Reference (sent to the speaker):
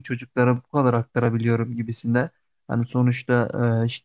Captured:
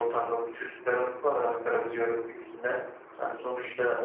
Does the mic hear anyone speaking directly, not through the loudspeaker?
No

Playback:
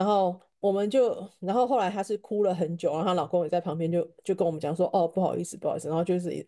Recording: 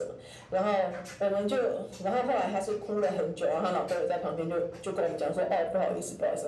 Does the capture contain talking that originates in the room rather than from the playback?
No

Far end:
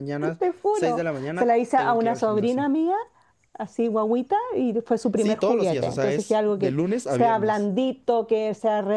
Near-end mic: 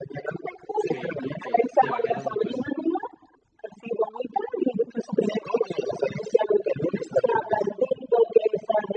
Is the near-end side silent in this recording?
No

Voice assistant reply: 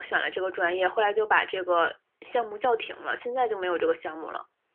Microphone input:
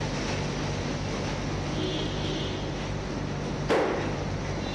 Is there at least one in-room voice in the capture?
No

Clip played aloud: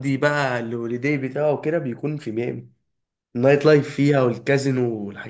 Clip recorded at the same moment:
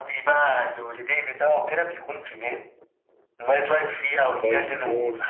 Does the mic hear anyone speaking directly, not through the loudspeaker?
Yes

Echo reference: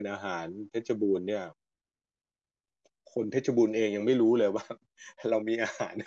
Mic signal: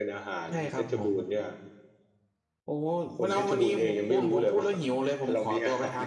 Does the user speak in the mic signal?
Yes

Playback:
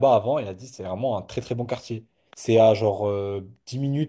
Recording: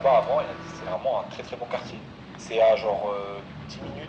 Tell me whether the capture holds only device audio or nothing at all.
Yes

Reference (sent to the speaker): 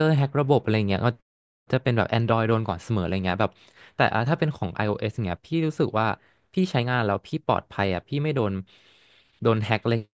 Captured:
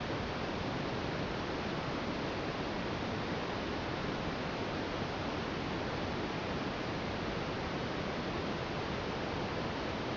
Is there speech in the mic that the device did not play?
No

